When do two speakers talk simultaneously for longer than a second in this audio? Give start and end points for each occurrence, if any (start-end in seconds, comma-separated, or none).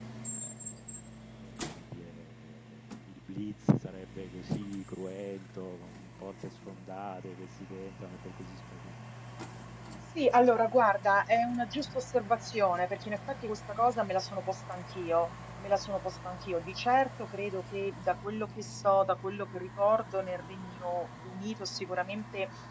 none